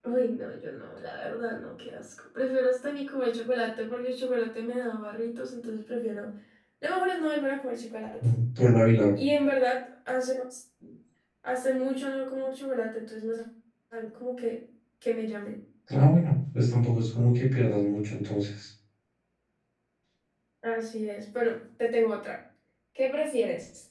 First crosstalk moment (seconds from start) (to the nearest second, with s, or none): none